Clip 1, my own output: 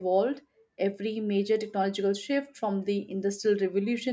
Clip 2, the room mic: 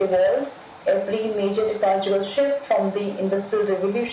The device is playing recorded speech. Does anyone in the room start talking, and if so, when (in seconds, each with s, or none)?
none